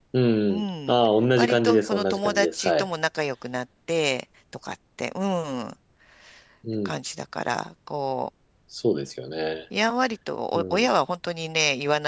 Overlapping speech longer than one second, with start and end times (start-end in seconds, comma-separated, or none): 1.4-2.9